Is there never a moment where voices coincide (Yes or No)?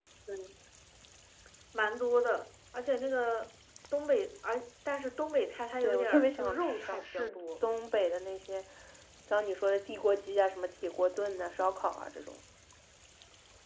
No